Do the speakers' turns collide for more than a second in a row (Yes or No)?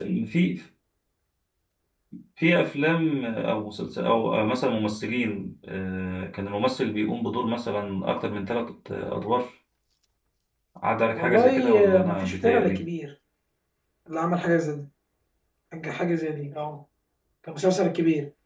Yes